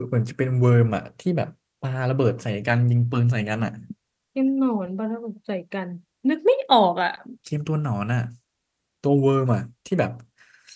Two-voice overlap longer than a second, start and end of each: none

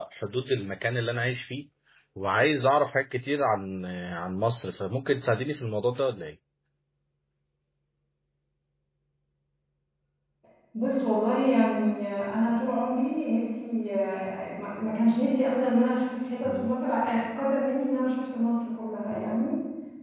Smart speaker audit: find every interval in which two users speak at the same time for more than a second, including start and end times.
none

